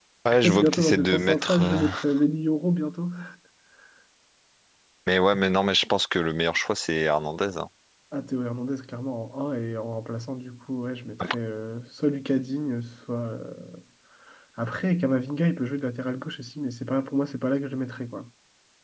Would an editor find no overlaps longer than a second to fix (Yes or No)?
No